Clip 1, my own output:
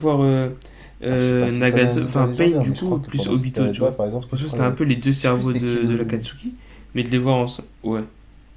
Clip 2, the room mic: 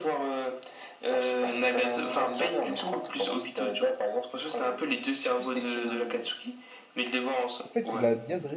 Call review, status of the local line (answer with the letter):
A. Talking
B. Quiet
A